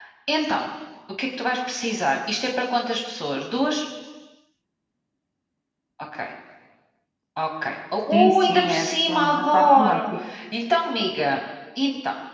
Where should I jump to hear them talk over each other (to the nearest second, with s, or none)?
8 s